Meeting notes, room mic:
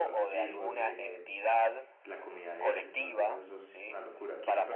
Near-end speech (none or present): present